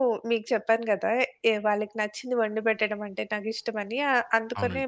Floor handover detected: No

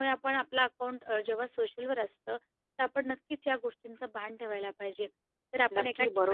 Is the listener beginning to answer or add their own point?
Yes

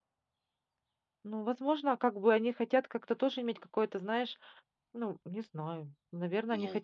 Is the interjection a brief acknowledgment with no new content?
Yes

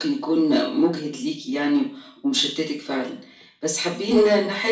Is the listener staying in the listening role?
Yes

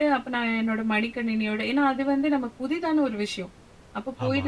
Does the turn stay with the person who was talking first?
Yes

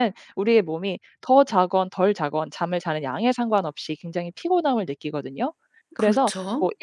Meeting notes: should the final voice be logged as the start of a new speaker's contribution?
No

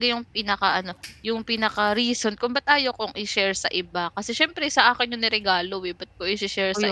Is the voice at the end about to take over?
Yes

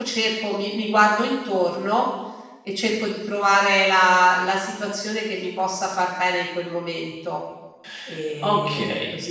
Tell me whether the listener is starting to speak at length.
Yes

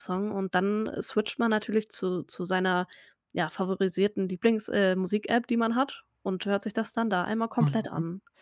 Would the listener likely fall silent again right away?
No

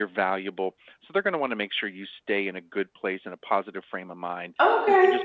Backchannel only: Yes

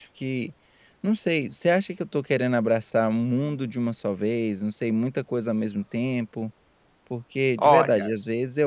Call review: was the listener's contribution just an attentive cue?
Yes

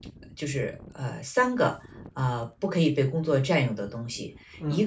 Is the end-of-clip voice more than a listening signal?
No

